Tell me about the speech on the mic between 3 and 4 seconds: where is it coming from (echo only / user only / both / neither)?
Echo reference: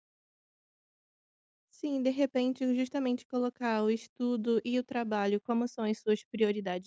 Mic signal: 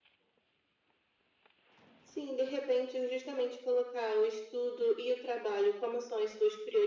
echo only